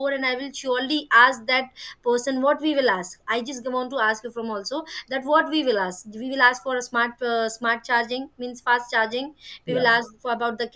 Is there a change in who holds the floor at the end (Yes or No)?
No